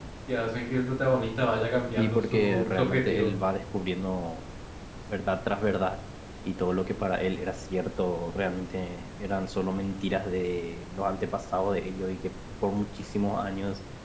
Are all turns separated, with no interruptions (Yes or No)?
No